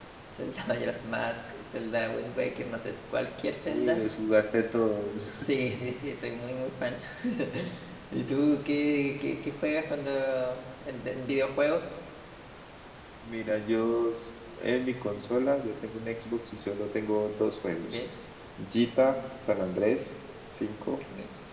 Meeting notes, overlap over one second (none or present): none